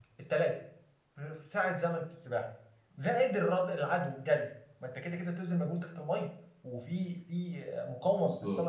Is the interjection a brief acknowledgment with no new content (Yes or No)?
Yes